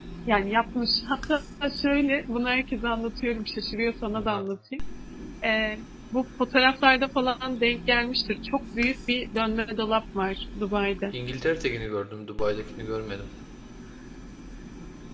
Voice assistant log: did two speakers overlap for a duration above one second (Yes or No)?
No